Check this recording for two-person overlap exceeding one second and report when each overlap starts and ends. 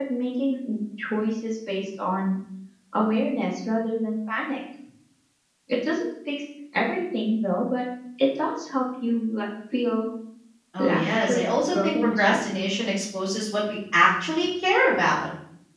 10.8-12.5

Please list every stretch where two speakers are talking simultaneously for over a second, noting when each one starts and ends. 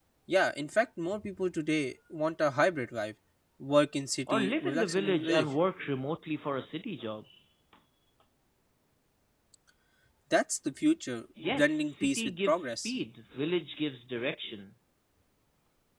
4.3-5.5, 11.4-12.9

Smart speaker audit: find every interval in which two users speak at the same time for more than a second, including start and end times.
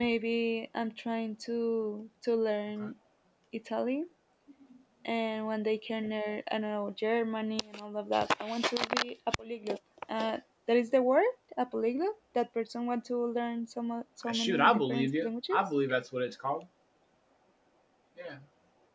14.3-15.6

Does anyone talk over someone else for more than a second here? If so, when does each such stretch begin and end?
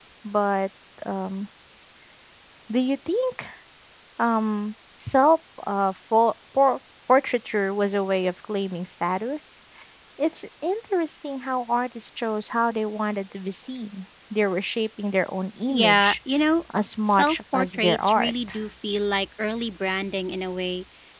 17.0-18.3

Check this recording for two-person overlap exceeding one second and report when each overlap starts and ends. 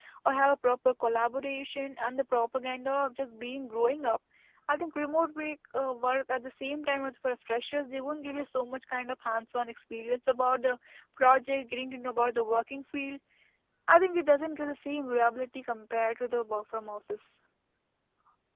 none

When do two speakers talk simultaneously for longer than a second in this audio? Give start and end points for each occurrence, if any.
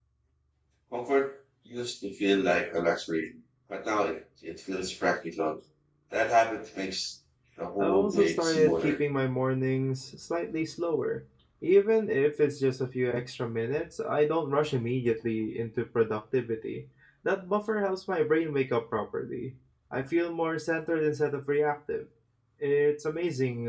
7.8-9.0

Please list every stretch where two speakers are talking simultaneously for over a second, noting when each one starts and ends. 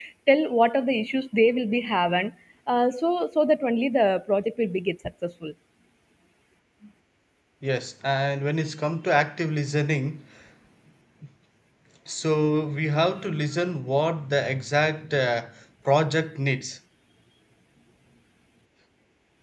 none

